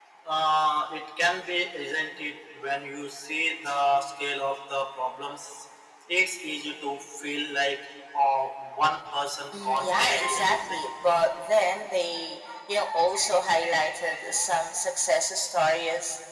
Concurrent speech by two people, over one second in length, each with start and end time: 9.5-10.8

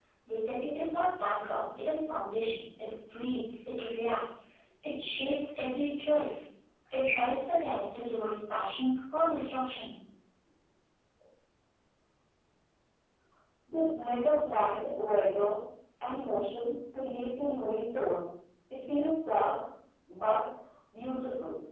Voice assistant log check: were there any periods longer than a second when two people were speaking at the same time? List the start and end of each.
none

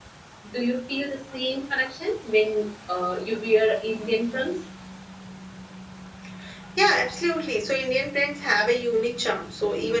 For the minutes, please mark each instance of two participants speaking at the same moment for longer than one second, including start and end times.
none

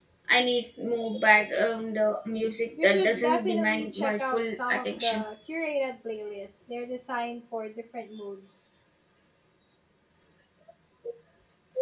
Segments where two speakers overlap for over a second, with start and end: 2.8-5.2

